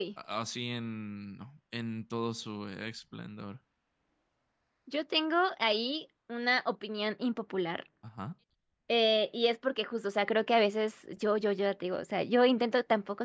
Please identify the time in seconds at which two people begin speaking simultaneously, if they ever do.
none

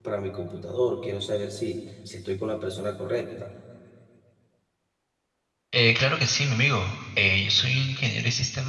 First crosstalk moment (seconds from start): none

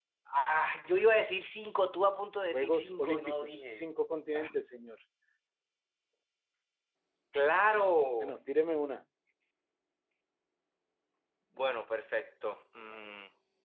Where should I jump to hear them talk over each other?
2.5 s

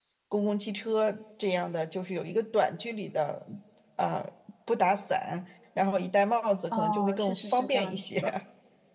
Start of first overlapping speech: 6.7 s

